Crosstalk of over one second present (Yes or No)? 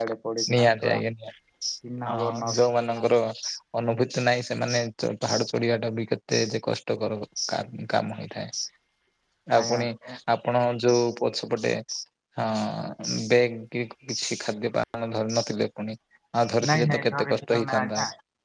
Yes